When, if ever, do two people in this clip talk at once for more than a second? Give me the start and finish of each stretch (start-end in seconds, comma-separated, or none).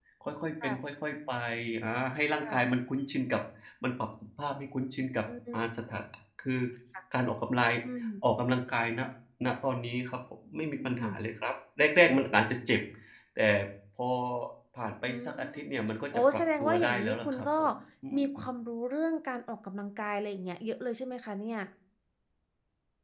16.1-17.5